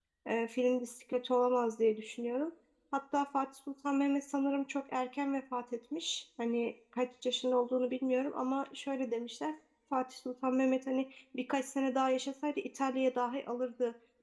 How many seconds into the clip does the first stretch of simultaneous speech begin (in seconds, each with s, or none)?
none